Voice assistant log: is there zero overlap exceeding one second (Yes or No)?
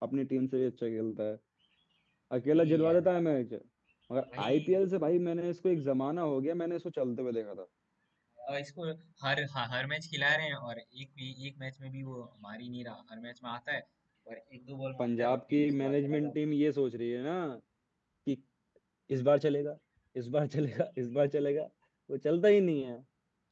No